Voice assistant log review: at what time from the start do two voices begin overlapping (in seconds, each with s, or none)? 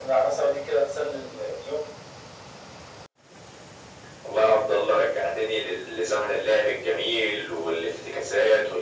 none